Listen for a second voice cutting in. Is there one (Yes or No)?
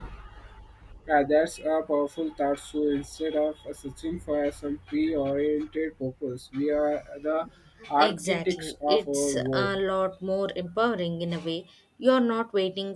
Yes